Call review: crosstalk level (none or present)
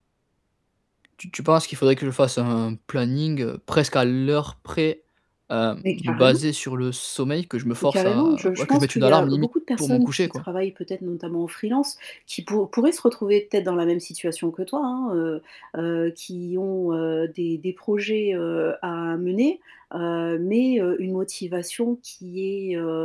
present